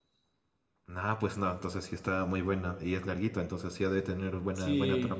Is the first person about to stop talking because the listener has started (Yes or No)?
Yes